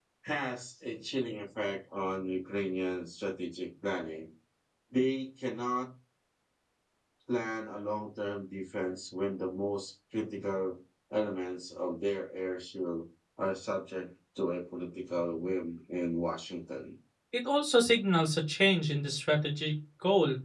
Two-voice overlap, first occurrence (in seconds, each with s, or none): none